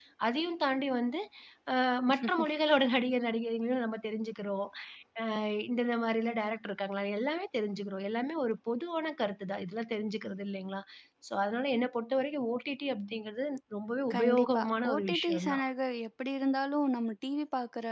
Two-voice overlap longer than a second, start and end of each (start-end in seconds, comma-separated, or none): 14.1-15.6